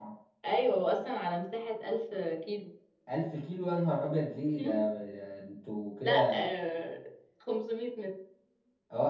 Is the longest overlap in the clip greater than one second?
No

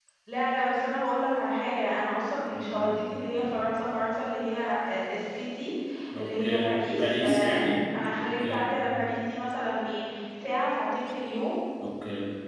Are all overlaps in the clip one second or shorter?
No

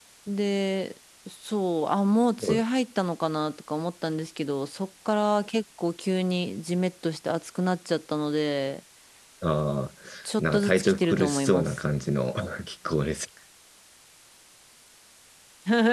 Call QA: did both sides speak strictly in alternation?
No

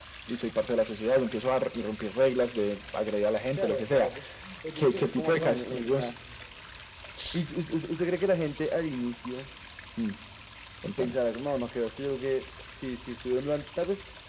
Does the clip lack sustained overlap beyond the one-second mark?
No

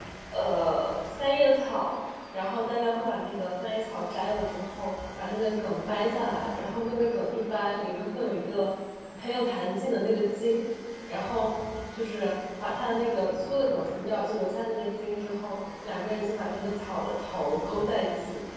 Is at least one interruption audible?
No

